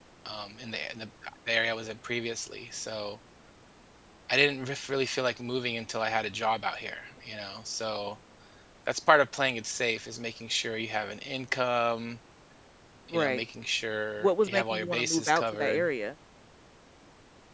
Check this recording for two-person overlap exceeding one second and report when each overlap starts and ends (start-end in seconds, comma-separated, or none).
14.2-15.9